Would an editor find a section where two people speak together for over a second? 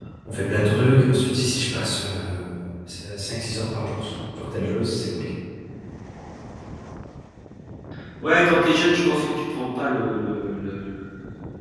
No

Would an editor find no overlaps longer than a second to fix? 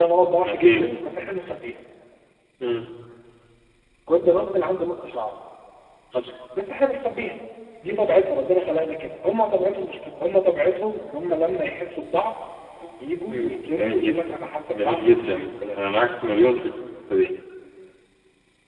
No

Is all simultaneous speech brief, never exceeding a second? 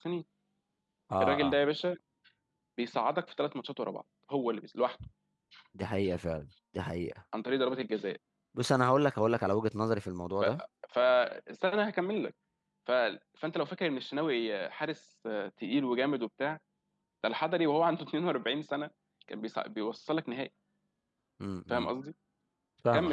Yes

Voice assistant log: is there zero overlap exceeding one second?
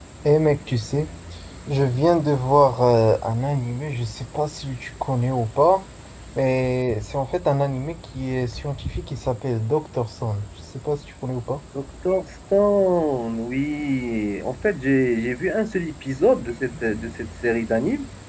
Yes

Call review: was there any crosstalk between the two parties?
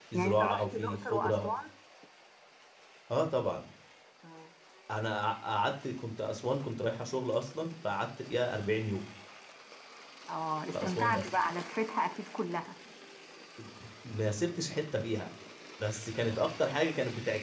Yes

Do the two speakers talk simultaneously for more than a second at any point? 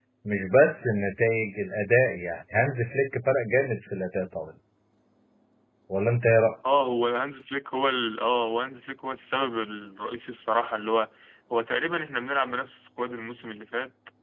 No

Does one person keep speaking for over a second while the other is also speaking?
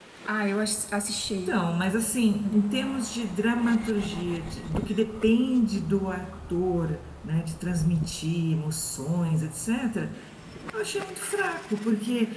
No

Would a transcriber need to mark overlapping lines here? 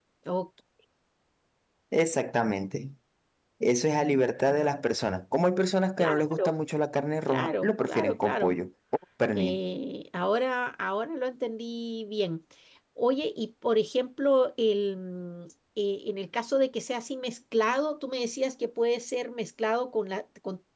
Yes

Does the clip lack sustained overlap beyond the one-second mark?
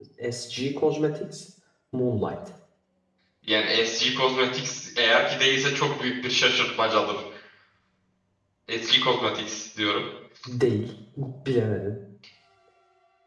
Yes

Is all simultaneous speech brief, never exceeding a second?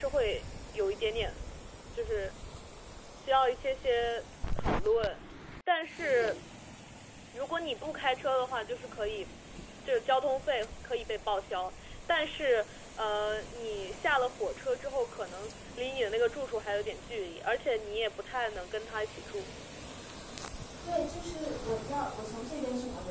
Yes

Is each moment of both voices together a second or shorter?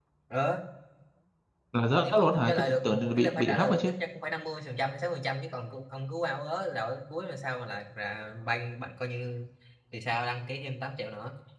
No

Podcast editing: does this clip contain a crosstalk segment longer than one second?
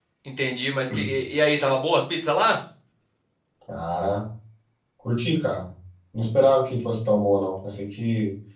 No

